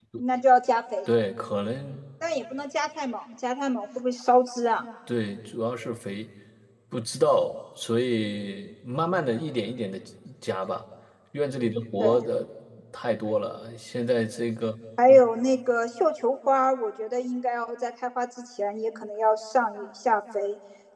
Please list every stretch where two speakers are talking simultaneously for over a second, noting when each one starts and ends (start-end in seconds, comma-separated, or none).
none